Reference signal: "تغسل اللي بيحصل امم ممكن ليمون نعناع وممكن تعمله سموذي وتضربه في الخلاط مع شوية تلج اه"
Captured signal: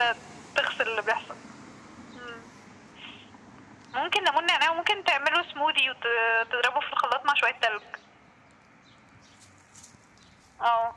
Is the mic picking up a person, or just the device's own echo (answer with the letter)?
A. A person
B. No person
B